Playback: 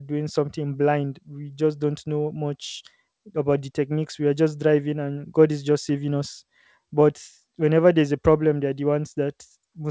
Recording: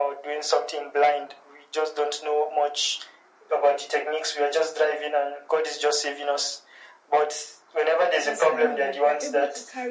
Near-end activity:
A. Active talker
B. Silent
A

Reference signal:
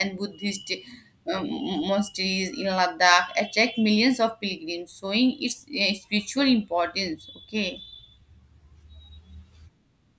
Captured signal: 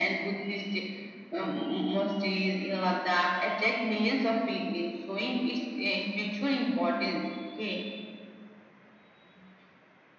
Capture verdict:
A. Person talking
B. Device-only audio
B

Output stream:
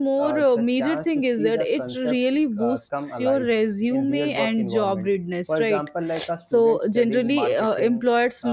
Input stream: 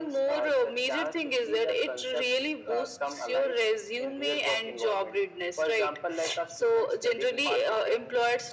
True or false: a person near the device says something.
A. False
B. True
A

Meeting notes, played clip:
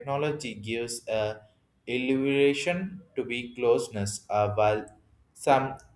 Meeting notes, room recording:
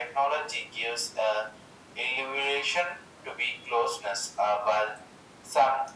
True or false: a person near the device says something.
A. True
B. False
B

